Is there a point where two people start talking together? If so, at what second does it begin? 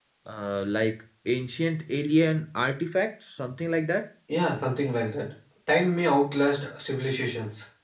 none

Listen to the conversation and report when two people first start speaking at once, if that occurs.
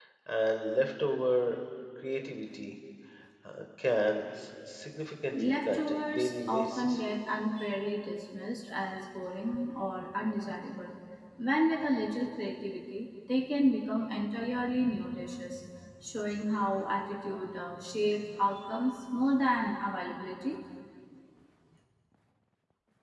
5.3 s

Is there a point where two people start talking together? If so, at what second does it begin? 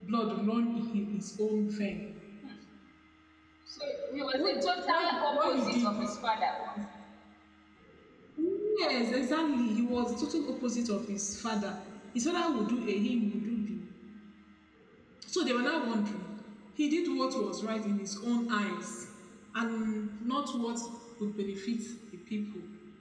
4.4 s

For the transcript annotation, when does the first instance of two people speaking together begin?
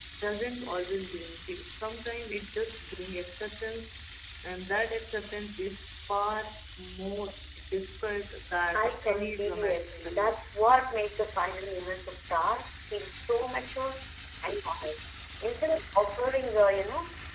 8.7 s

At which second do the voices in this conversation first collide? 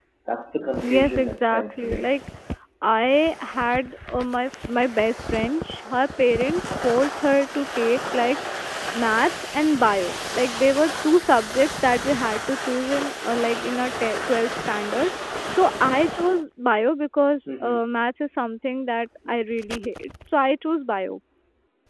0.8 s

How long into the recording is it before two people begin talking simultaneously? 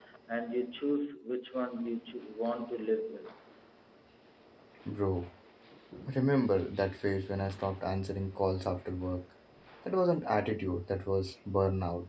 none

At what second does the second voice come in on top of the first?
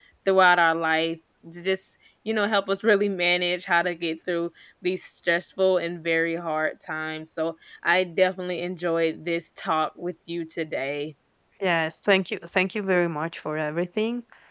none

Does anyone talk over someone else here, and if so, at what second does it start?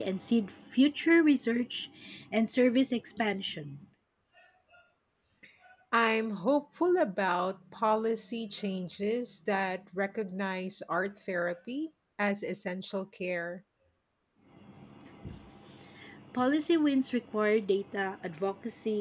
none

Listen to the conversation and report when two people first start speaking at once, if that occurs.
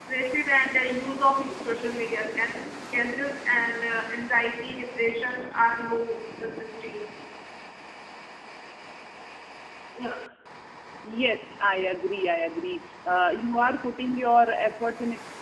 none

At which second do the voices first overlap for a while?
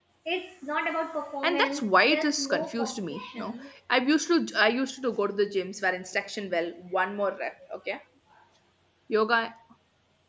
1.4 s

